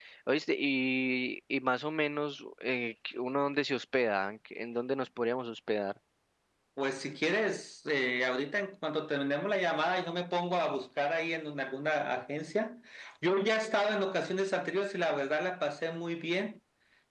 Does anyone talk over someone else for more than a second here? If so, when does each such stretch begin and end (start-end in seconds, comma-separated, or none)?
none